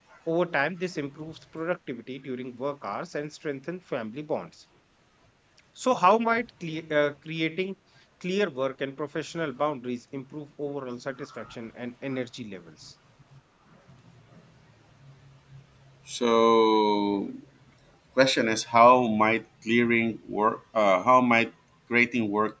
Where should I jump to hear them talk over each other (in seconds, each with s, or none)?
none